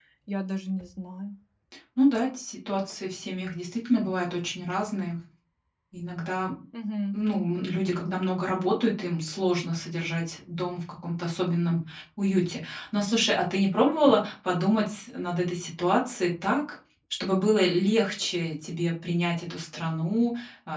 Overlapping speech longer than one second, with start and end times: none

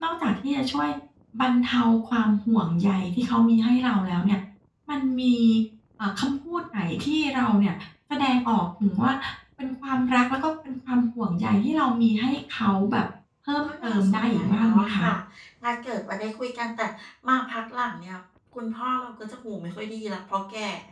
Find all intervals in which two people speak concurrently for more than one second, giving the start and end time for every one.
13.6-15.0

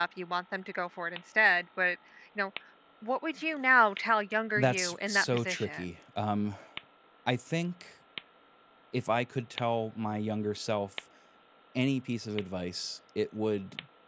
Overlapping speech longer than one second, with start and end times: 4.6-5.8

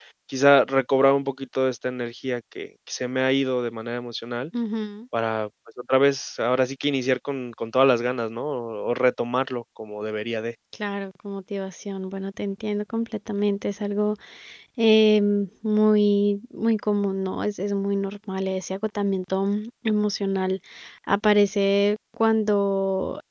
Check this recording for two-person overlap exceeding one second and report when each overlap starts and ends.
none

